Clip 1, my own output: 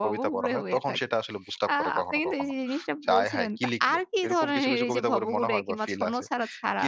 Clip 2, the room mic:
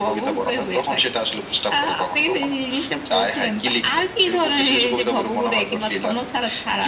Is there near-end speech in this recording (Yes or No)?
No